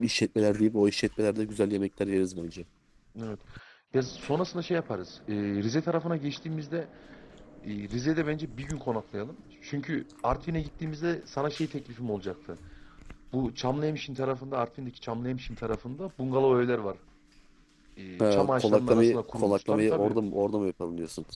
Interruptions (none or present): present